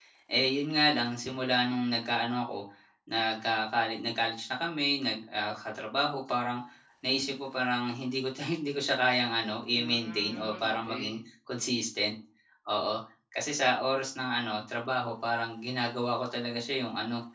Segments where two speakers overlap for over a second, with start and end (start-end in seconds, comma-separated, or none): 9.8-11.2